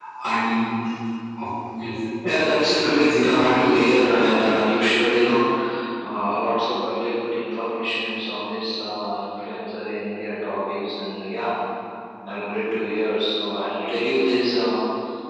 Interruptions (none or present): present